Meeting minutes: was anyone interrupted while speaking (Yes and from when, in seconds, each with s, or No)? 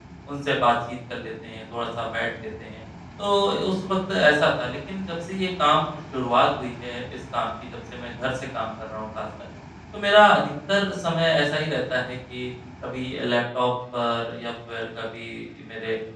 No